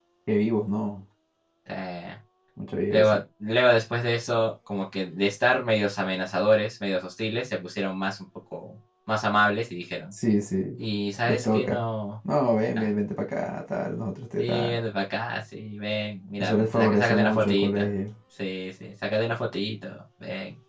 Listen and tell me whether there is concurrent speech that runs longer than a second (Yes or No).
Yes